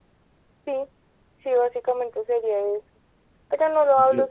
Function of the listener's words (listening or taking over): listening